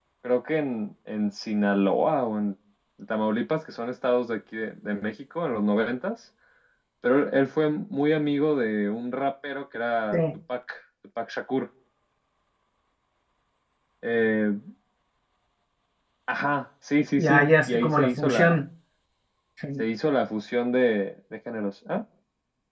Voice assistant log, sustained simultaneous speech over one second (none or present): present